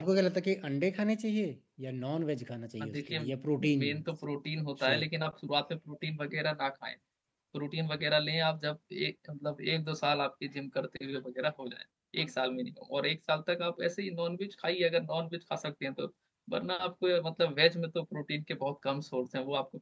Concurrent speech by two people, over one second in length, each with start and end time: none

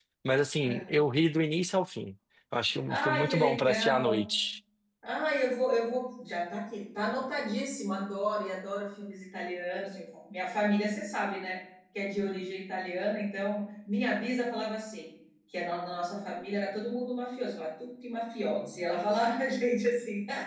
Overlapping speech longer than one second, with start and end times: 2.9-4.2

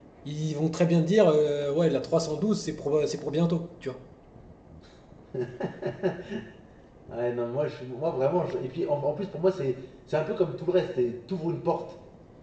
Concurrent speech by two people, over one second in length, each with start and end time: none

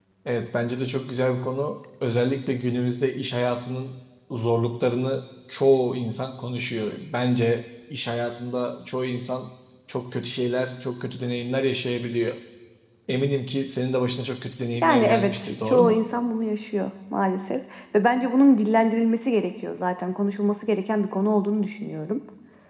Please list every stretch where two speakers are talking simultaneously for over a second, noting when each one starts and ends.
14.8-16.0

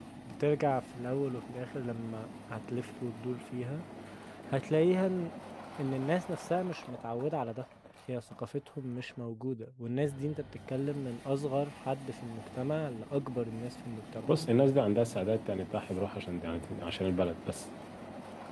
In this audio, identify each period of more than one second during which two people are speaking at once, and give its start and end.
none

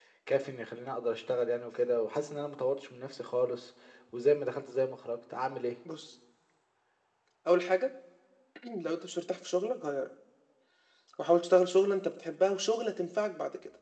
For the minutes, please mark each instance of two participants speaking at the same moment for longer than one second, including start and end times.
none

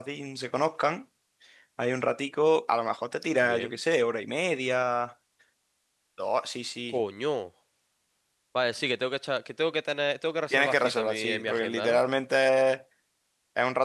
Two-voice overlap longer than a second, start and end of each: 10.5-12.0

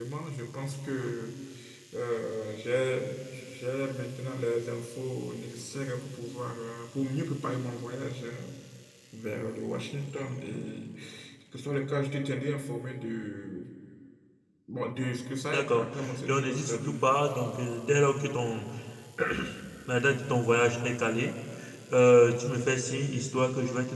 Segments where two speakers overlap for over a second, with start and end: 15.5-17.1

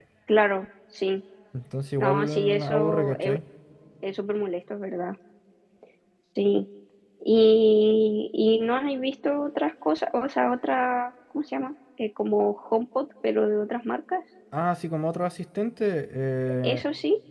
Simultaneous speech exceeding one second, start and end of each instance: 2.0-3.4

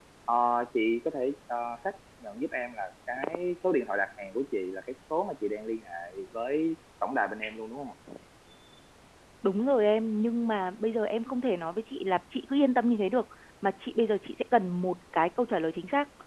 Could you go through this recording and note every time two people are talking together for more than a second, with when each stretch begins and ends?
none

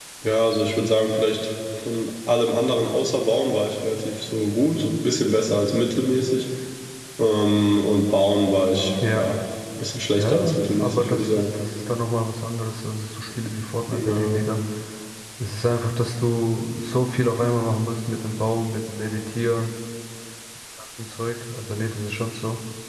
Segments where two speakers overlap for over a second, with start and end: 10.2-11.4

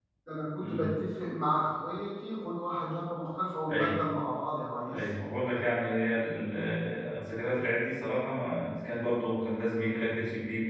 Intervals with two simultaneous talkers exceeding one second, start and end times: none

